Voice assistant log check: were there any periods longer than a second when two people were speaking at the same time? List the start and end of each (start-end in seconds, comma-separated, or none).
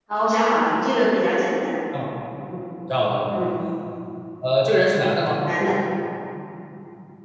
none